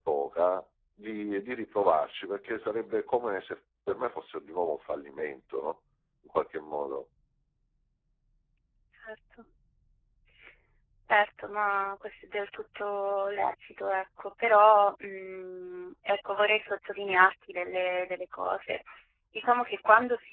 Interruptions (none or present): none